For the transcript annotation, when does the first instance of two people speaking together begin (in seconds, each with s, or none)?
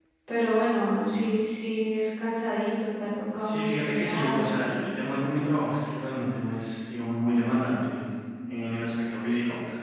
3.4 s